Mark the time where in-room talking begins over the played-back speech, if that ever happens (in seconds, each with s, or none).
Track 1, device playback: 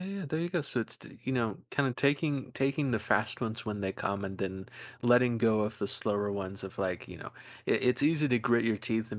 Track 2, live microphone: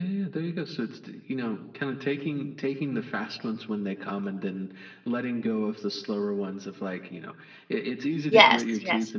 8.3 s